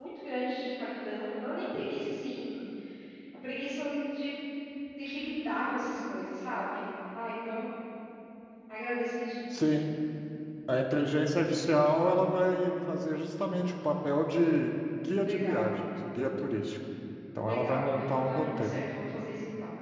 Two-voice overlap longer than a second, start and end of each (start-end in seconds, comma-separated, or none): 17.4-18.8